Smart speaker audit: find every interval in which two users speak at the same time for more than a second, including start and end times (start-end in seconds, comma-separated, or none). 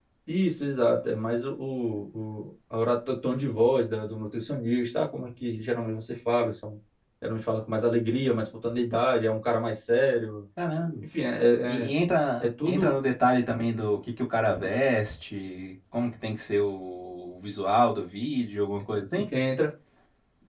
none